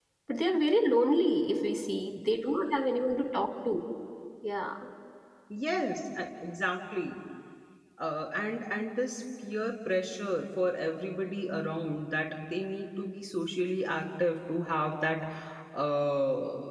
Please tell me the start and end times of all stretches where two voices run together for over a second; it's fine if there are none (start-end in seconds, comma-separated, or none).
none